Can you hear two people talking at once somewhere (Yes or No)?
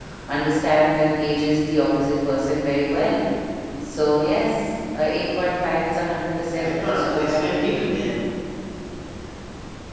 Yes